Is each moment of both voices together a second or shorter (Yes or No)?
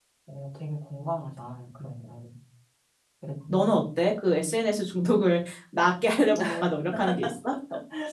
Yes